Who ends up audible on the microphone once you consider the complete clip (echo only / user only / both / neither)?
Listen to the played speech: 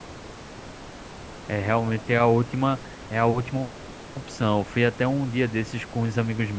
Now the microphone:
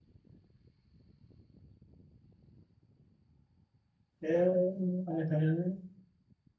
user only